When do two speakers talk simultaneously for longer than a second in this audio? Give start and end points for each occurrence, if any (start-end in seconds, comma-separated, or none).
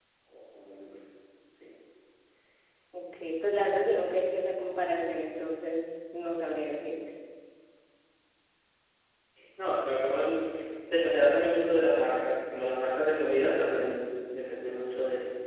none